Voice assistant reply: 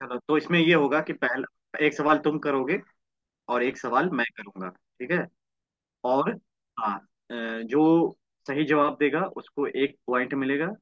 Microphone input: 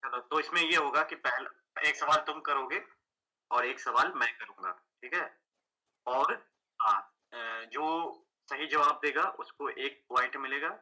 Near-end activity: none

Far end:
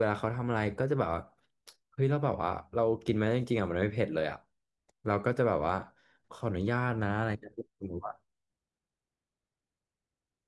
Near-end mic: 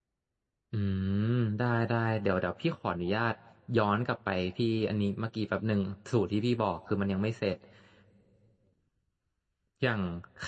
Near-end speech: present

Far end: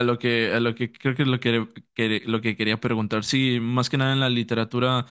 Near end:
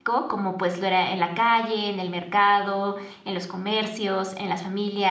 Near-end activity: present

